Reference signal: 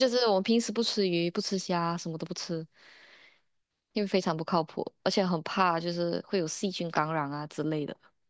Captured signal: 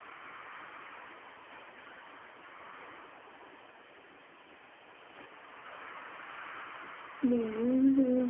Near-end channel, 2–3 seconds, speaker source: neither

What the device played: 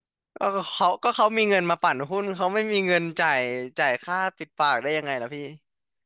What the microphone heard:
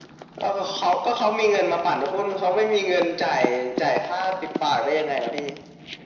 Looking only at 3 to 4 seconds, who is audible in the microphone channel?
echo only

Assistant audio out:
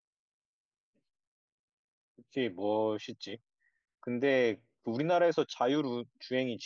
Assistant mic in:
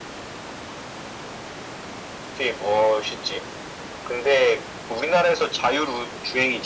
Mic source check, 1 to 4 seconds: echo only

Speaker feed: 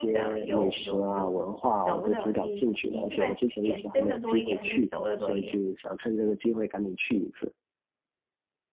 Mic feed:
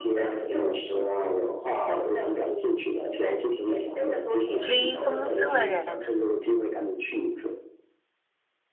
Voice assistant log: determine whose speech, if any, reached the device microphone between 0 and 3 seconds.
echo only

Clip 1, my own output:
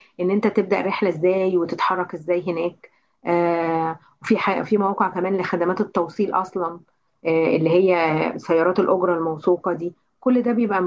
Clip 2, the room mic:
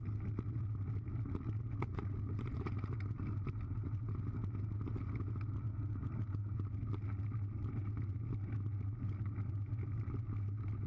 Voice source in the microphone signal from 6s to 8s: neither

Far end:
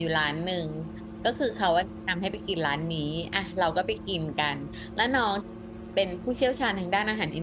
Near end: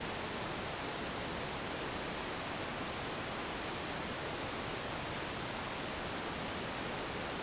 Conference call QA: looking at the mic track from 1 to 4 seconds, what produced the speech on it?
neither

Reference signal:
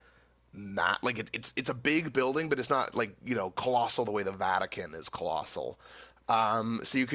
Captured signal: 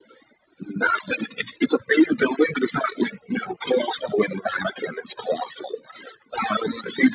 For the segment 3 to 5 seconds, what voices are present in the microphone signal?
echo only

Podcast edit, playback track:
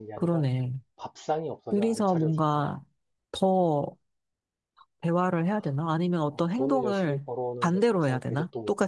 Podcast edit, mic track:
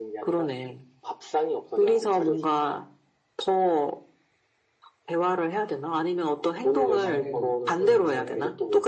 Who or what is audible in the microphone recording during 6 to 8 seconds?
both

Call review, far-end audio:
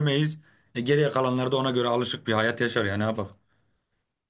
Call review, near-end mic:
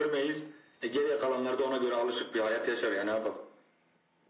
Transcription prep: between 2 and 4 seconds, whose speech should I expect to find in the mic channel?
echo only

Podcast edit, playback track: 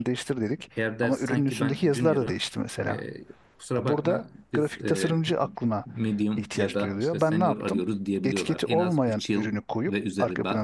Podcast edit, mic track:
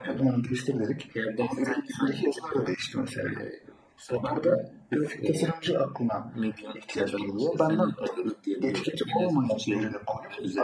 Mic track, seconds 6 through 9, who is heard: echo only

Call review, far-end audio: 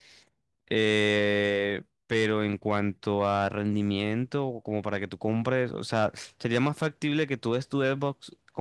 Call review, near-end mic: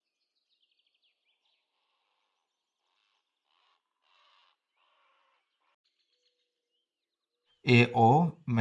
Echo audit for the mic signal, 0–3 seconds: neither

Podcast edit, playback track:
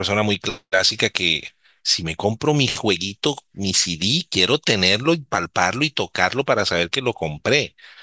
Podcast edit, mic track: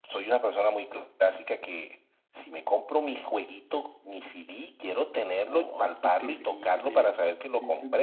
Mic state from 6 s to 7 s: both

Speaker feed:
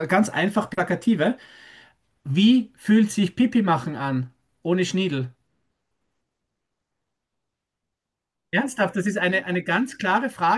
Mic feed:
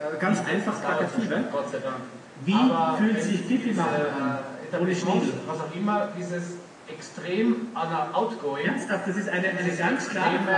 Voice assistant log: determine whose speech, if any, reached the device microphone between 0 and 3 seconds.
both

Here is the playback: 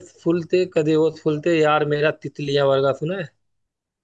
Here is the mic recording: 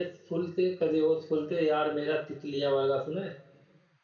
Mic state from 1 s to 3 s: echo only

